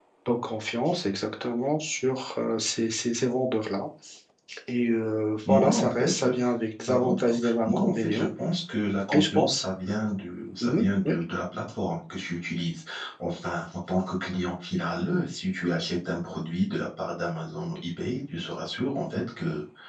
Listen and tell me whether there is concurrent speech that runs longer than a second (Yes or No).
Yes